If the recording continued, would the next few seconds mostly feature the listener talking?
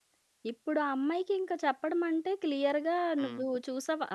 No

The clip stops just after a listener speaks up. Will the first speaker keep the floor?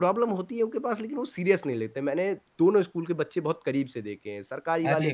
Yes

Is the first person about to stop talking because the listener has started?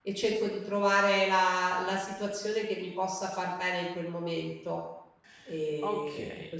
Yes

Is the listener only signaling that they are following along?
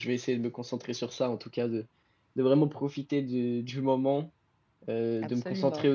Yes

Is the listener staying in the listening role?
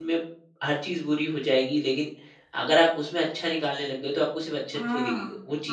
No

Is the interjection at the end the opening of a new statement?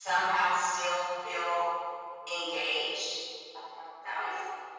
Yes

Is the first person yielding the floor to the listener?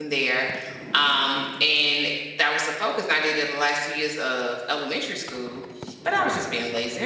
No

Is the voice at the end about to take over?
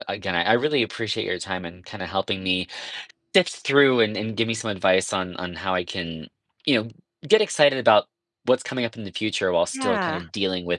No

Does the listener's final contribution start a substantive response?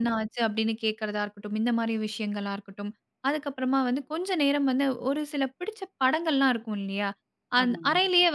No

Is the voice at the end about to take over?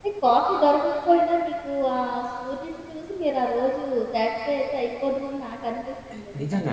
Yes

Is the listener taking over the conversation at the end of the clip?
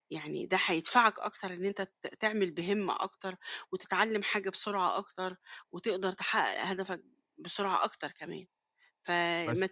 No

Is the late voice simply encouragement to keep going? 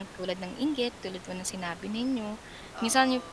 Yes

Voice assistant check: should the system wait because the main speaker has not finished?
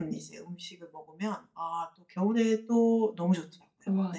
No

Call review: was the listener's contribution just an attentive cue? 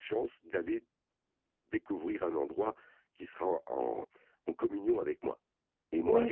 No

